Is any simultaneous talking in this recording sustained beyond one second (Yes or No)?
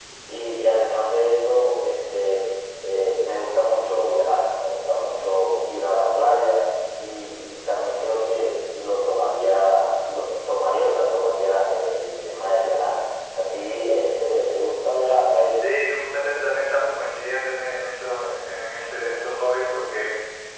No